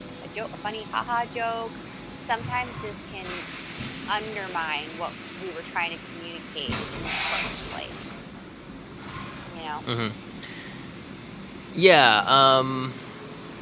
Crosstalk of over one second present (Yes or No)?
No